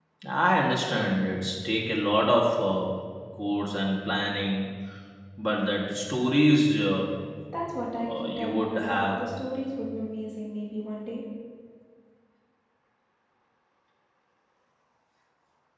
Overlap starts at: 8.1 s

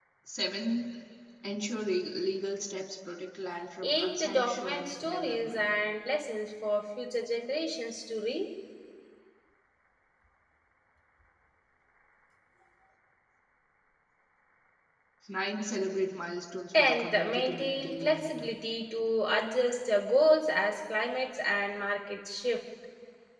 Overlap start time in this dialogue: 3.8 s

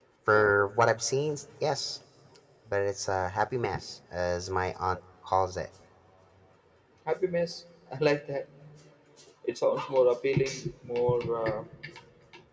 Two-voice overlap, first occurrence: none

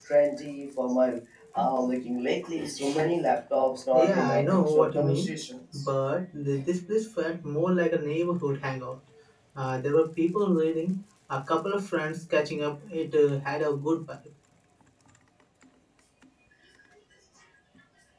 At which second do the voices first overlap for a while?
3.9 s

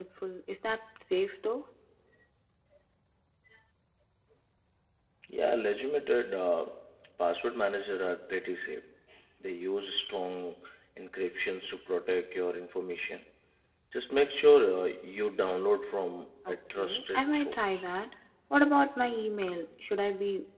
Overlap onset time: 16.4 s

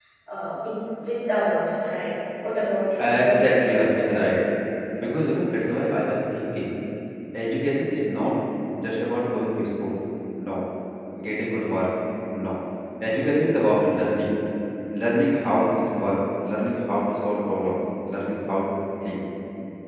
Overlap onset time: 3.0 s

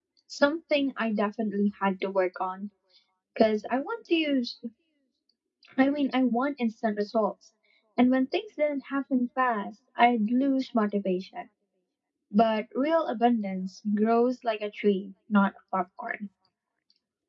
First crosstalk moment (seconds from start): none

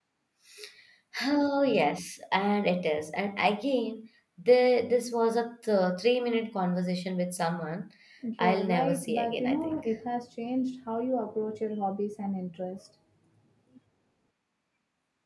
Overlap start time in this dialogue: 8.4 s

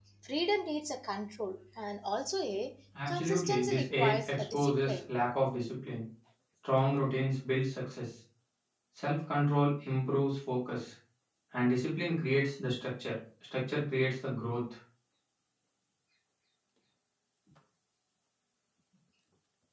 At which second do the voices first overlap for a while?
2.9 s

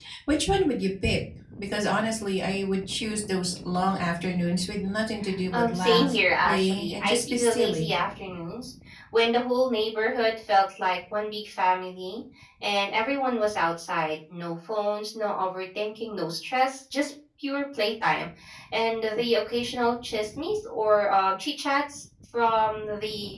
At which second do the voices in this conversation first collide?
5.5 s

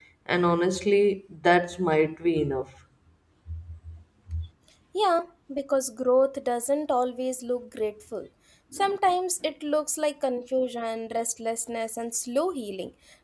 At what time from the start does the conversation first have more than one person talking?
none

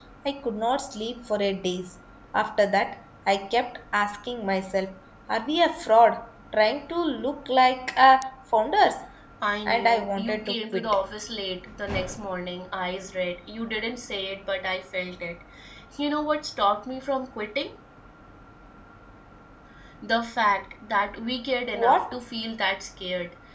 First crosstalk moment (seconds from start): 9.7 s

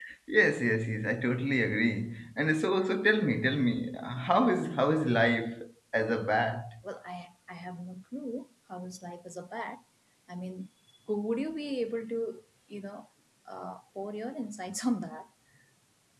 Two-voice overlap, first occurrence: none

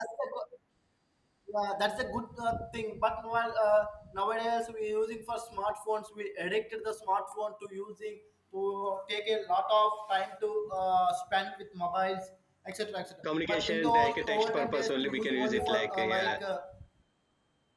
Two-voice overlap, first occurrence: 13.2 s

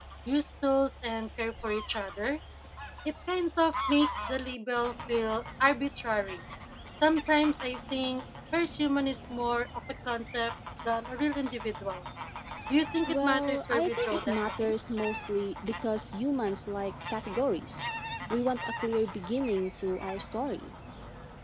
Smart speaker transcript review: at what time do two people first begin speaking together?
13.1 s

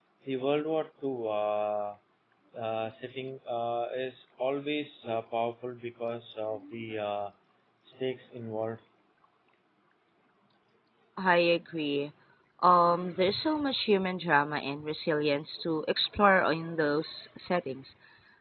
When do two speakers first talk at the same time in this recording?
none

